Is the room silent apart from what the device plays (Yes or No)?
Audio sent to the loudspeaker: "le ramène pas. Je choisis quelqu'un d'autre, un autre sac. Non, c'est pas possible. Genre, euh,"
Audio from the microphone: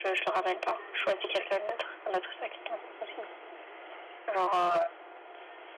Yes